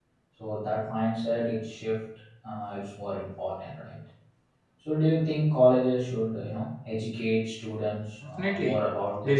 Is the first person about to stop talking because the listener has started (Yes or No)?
Yes